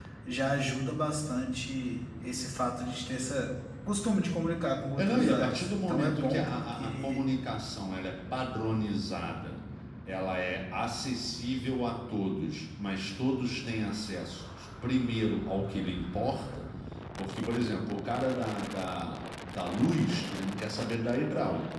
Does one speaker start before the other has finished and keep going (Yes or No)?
Yes